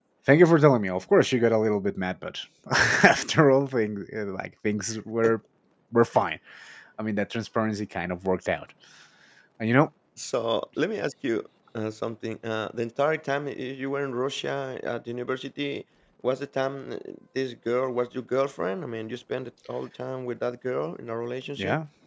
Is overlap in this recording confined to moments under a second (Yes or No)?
Yes